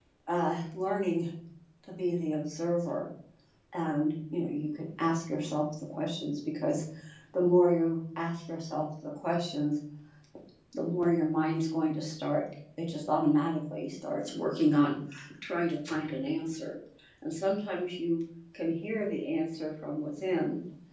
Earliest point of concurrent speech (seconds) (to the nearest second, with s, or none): none